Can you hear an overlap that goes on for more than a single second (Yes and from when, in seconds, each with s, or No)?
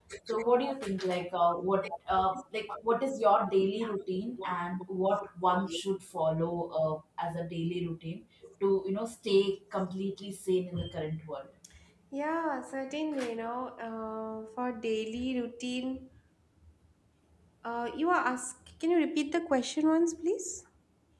No